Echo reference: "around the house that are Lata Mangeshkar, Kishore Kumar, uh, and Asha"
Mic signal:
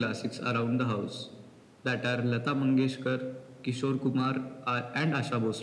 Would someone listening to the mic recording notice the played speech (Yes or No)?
Yes